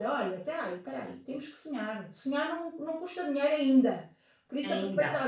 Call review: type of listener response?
listening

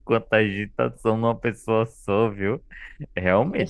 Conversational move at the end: listening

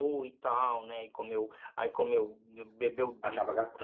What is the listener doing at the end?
listening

